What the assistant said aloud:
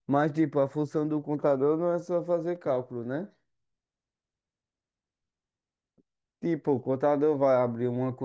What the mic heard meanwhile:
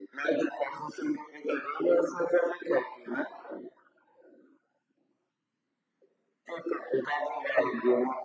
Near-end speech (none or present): none